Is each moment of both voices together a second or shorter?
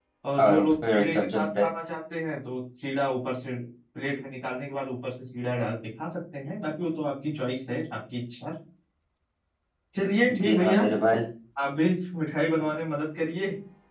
No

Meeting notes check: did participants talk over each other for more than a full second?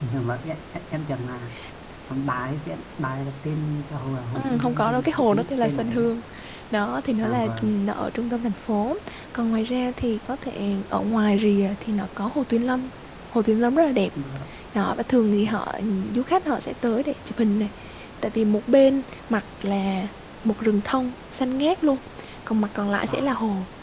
Yes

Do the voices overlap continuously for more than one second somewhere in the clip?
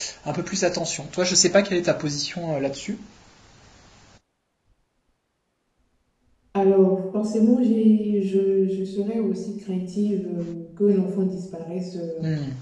No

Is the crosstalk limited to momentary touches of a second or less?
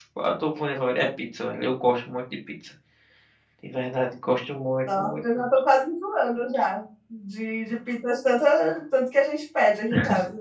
Yes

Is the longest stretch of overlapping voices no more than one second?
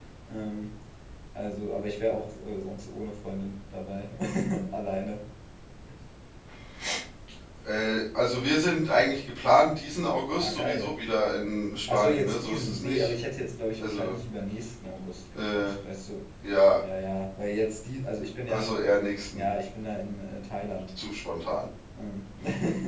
No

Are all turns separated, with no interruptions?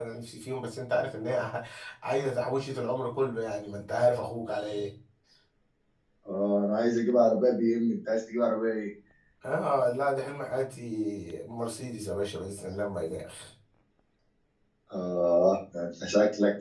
Yes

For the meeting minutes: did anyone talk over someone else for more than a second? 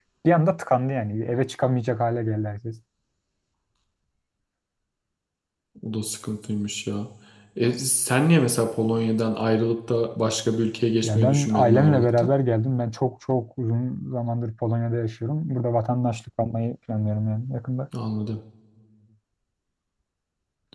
Yes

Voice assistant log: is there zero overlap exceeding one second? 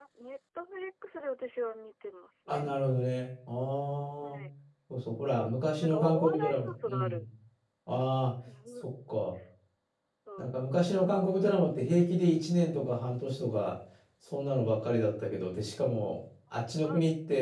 No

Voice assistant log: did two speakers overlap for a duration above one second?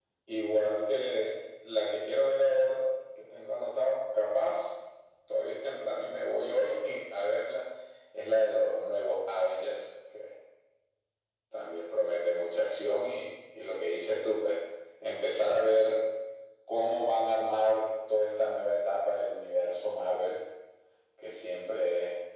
No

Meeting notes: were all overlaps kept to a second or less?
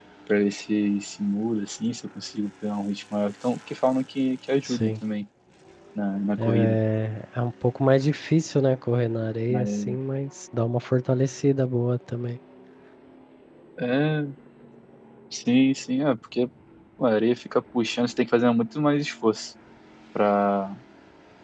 Yes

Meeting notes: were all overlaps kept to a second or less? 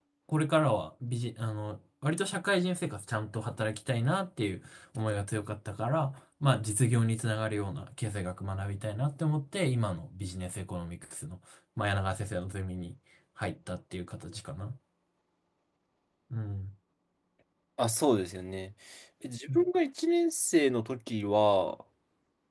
Yes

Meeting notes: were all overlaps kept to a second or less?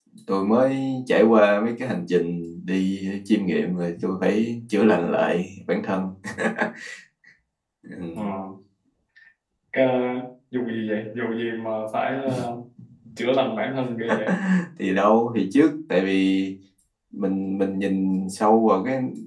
Yes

